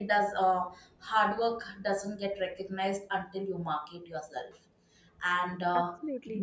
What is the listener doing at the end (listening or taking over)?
listening